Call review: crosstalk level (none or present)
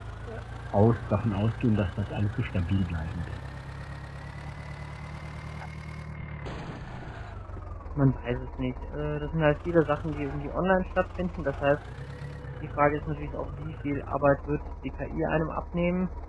none